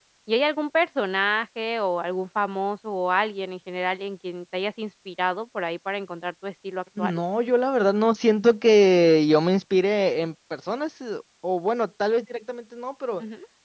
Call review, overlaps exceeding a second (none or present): none